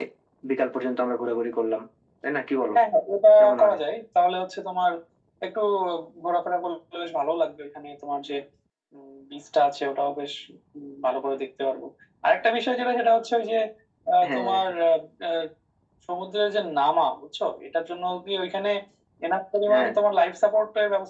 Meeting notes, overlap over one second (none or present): none